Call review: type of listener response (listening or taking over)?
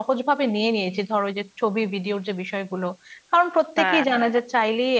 listening